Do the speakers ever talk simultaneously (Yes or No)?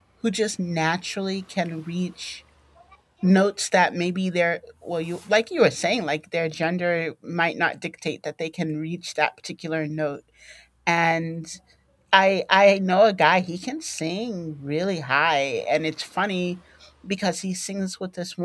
No